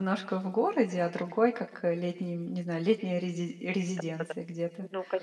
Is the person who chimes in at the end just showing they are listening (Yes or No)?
No